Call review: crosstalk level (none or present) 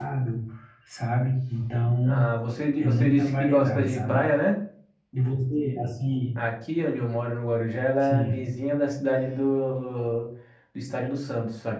present